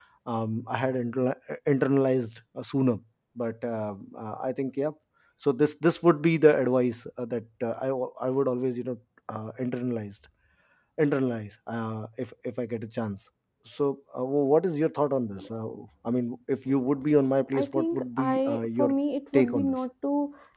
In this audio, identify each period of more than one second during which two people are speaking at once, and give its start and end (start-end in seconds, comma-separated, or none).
17.5-18.9